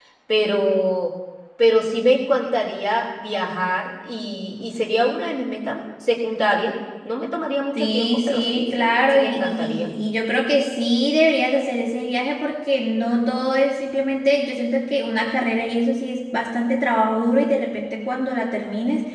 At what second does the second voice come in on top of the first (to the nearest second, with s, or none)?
8 s